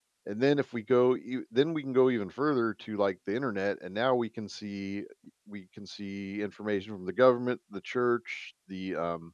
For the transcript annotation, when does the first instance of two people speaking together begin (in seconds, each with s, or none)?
none